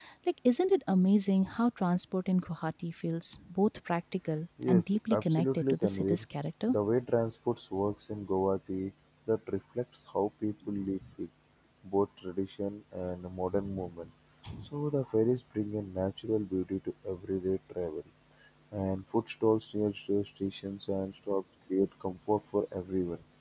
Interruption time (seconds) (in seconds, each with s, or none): 4.7 s